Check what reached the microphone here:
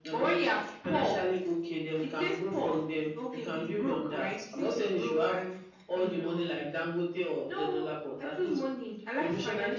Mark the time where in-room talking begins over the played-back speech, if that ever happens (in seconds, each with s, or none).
none